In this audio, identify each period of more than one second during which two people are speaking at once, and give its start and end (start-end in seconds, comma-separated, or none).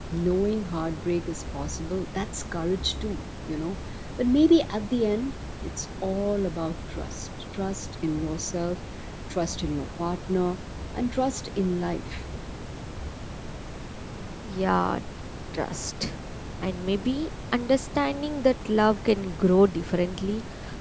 none